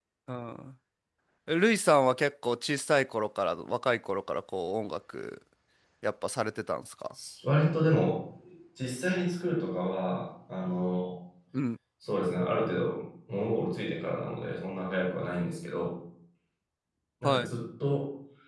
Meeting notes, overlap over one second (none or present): none